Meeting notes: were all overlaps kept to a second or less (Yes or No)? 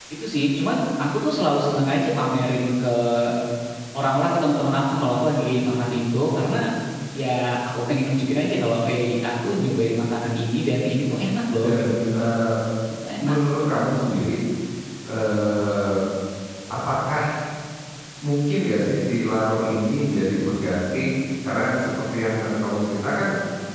Yes